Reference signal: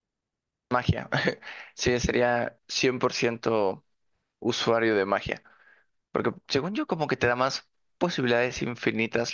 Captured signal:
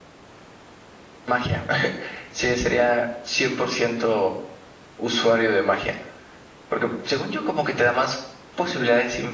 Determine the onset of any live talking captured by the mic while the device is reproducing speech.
none

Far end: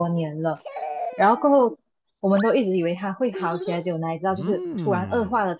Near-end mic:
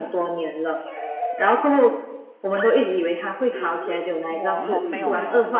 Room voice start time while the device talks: 4 s

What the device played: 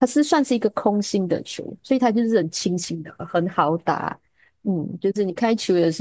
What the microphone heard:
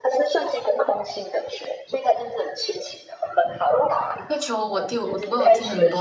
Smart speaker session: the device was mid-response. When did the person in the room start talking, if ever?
4 s

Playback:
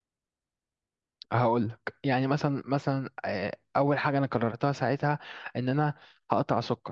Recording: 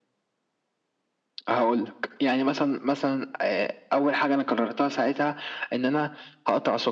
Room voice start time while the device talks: none

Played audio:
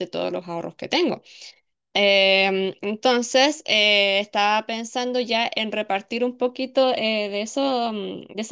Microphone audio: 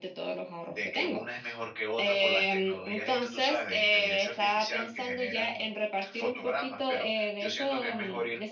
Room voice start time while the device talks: 1 s

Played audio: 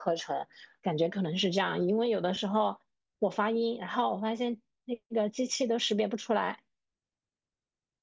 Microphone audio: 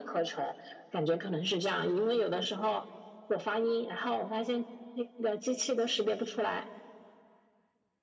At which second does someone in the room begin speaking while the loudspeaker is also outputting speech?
none

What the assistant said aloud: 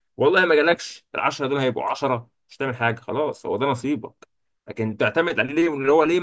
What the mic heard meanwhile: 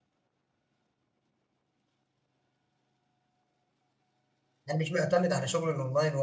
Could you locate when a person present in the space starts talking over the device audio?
5 s

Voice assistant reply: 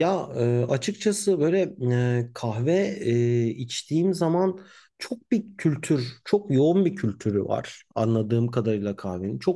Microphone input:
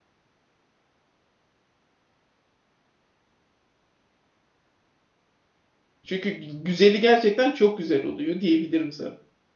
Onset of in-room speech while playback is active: 6 s

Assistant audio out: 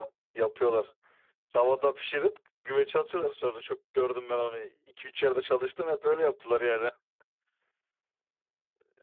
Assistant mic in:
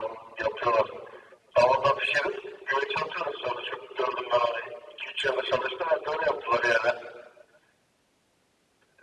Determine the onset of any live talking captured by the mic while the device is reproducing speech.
none

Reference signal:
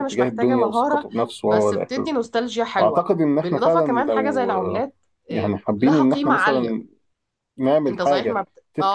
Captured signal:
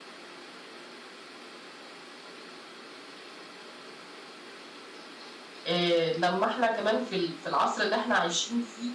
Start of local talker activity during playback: 6 s

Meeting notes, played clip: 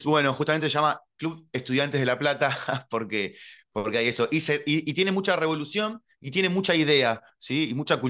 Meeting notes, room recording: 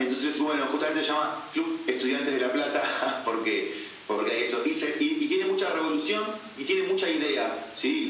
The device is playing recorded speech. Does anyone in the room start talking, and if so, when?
none

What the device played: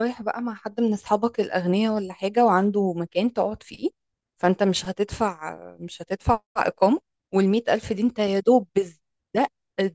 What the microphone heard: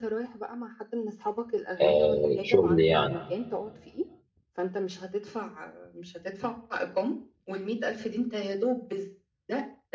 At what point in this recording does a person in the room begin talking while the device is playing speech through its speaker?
2 s

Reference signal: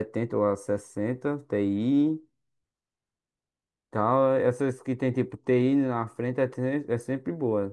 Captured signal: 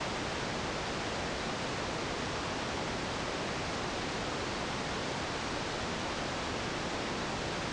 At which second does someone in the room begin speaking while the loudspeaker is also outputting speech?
none

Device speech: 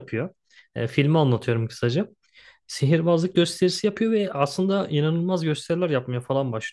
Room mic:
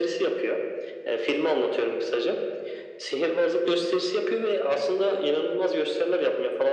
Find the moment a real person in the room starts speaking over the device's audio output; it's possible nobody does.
none

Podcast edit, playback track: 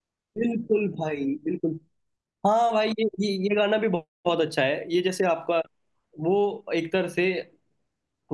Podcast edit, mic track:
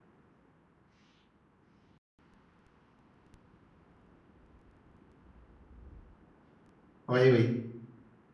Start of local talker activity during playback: 7 s

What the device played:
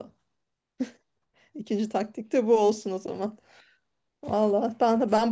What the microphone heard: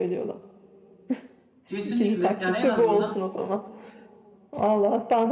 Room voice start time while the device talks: 2 s

